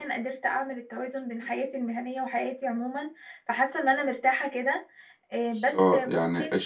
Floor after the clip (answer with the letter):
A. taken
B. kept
A